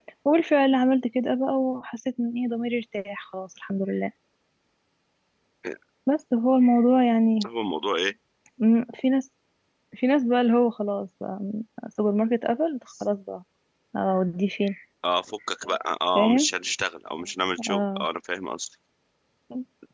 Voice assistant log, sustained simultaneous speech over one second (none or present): none